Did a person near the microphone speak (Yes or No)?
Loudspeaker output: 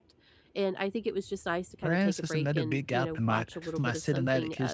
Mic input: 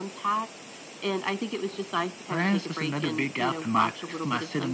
No